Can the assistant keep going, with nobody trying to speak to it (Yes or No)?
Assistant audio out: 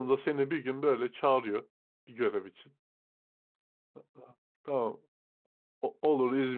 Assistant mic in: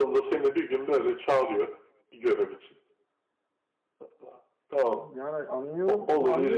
No